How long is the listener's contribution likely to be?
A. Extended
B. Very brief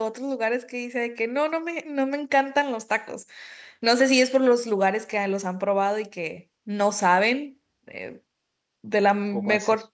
B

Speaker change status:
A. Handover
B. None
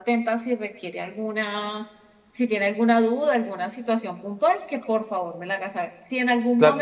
B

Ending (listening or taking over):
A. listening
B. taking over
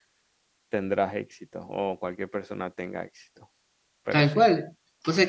B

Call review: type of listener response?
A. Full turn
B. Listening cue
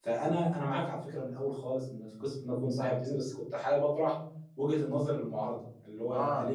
B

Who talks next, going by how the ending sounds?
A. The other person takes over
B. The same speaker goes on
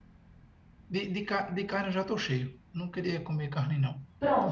A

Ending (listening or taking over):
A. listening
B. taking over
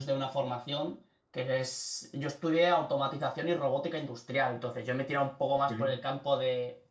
A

